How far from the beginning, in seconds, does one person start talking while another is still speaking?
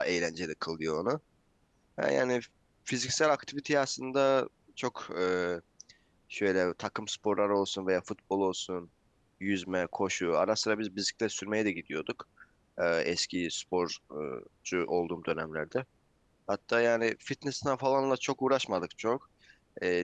none

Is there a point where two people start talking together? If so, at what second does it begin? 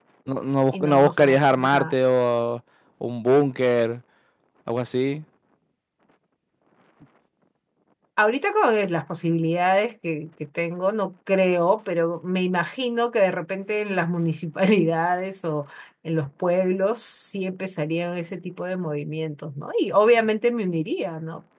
0.7 s

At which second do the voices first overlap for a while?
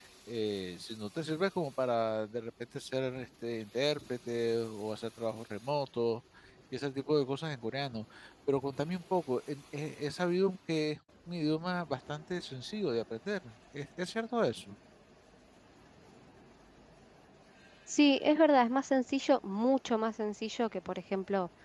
none

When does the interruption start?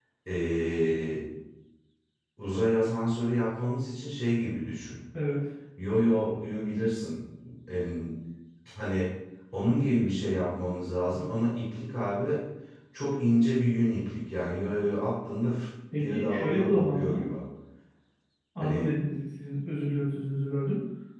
16.0 s

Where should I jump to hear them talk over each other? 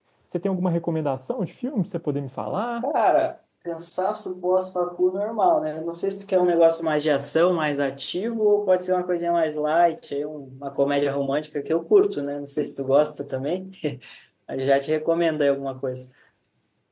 none

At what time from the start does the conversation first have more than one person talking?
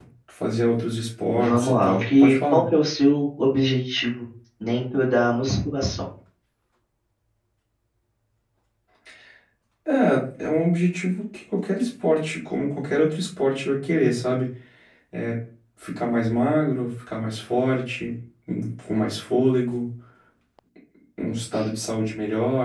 1.3 s

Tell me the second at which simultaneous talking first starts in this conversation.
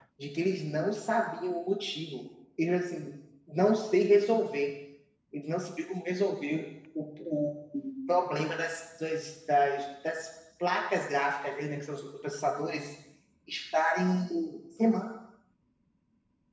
none

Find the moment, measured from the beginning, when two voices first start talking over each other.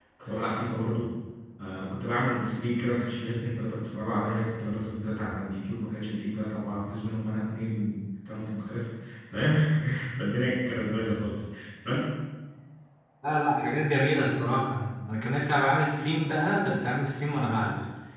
none

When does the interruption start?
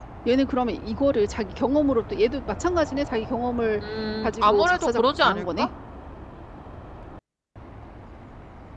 4.2 s

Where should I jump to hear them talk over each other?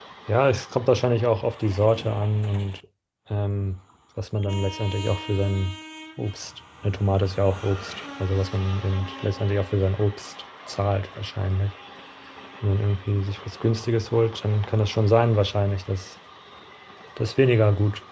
none

